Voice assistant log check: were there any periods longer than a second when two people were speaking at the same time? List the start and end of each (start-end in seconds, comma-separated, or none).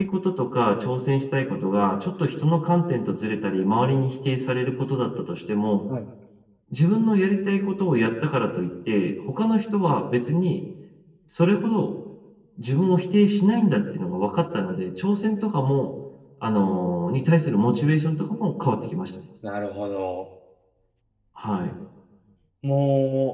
none